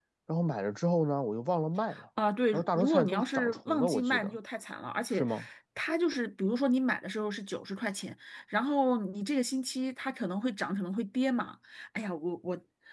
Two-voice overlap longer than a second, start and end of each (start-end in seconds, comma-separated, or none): 2.5-4.4